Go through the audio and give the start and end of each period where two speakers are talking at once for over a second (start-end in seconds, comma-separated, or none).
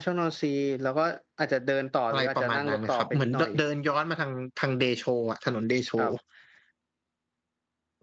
2.1-3.5